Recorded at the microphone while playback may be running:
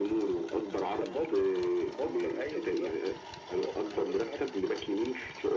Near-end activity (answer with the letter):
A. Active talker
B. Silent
B